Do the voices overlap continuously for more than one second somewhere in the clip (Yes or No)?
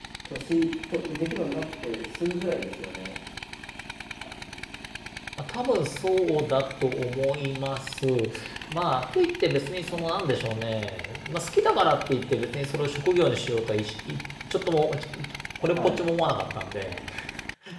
No